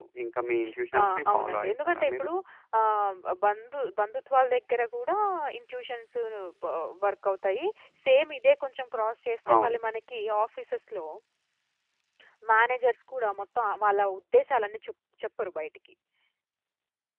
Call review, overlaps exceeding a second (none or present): present